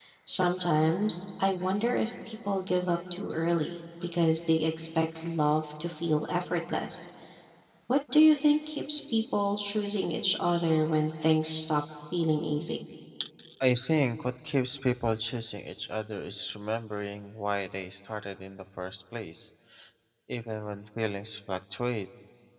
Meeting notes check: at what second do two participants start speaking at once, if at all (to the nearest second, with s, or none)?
none